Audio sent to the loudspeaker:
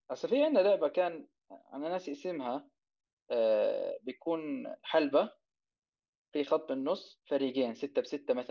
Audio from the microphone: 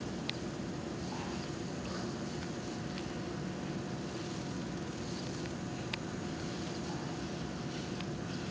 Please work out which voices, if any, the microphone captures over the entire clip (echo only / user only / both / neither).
neither